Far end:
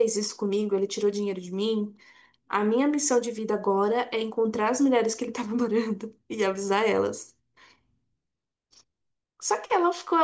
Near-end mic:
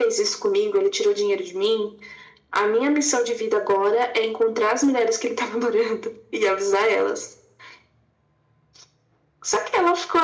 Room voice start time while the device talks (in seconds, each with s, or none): none